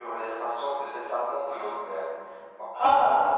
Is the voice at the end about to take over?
Yes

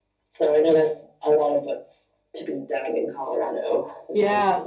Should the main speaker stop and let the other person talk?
Yes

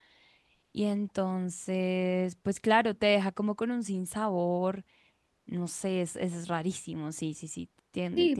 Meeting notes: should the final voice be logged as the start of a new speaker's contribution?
Yes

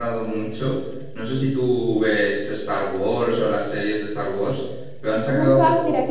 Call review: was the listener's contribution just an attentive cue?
No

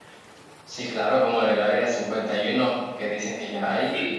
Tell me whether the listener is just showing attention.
Yes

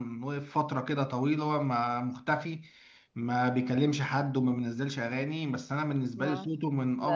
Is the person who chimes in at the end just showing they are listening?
No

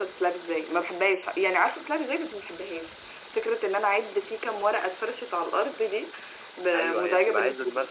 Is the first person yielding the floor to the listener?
Yes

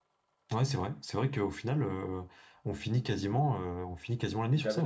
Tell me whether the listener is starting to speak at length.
Yes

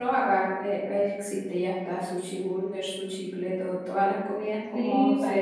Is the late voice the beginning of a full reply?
Yes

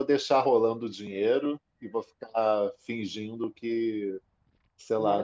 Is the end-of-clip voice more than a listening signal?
No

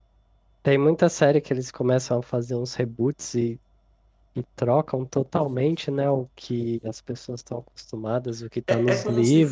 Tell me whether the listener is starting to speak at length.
Yes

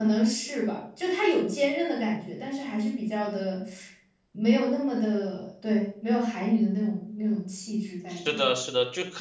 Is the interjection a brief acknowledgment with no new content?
No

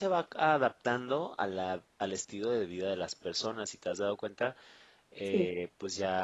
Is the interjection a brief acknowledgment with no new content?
Yes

